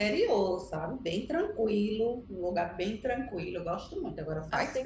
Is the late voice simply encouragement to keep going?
No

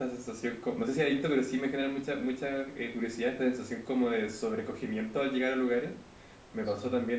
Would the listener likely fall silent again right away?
Yes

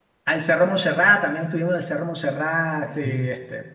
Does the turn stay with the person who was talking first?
Yes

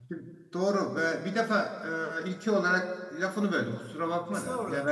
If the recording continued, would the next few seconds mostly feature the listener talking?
No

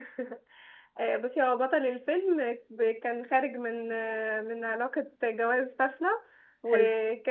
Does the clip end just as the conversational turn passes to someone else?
No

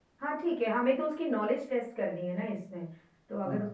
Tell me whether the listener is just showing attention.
No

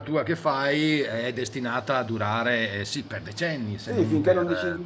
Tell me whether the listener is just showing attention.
No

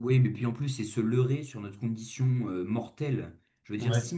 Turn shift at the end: No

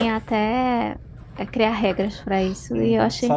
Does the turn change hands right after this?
Yes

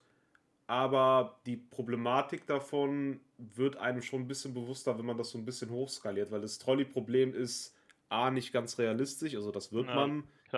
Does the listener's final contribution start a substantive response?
No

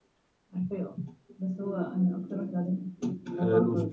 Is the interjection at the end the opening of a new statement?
Yes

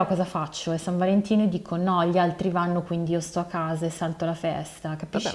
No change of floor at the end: No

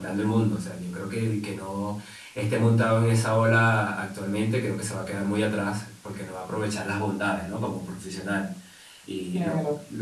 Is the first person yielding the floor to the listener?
Yes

